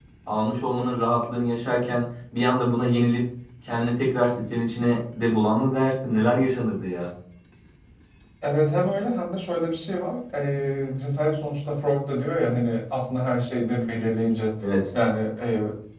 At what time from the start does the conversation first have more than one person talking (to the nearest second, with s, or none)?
none